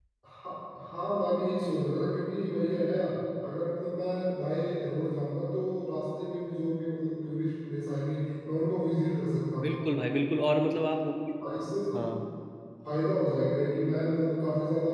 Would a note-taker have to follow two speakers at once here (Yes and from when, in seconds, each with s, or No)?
No